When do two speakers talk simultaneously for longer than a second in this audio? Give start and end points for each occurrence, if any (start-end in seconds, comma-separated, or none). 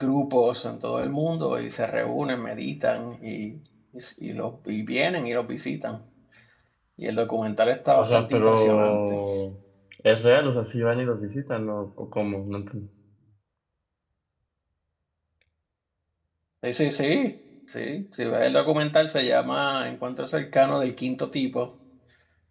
8.0-9.2